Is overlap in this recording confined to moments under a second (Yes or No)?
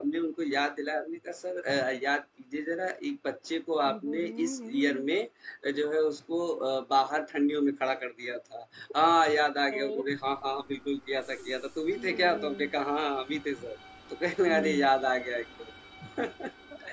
No